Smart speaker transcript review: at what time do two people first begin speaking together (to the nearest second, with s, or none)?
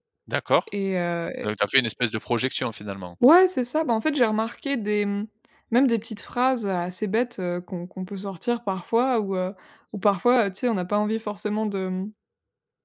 none